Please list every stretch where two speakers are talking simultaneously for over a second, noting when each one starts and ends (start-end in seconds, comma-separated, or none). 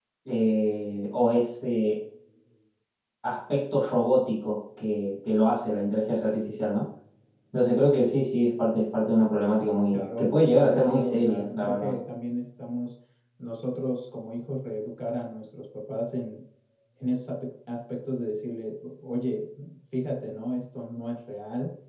9.9-12.0